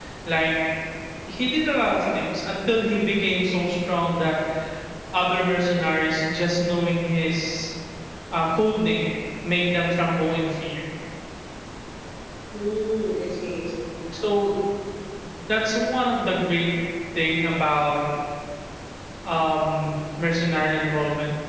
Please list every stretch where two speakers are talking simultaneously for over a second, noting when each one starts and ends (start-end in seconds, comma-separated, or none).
none